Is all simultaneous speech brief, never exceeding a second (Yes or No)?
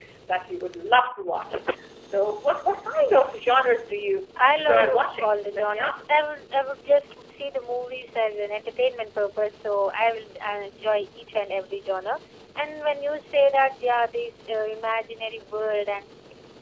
No